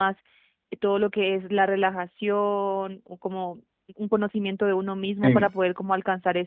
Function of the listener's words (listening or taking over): listening